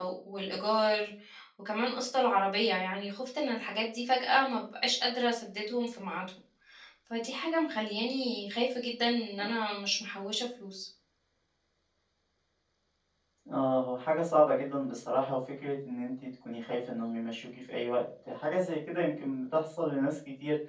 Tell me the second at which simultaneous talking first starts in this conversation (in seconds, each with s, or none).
none